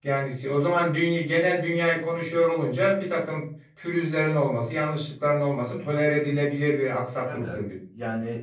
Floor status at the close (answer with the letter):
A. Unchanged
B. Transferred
B